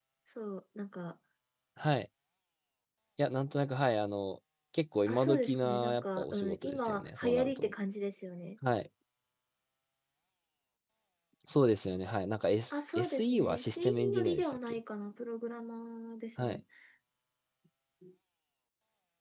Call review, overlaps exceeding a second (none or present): present